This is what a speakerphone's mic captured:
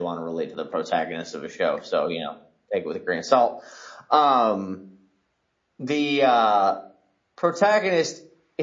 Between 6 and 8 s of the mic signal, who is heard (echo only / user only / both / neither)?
echo only